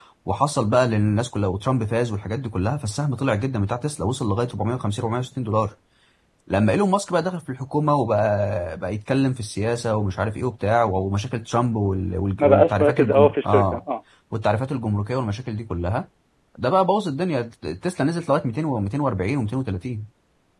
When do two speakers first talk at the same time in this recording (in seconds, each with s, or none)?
12.4 s